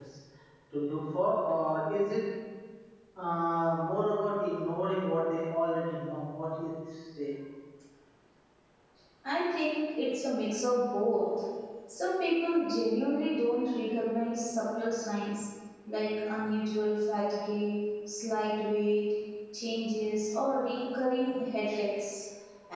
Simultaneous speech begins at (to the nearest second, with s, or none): none